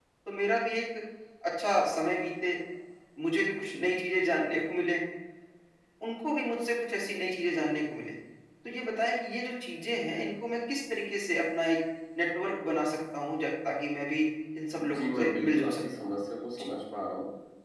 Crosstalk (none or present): present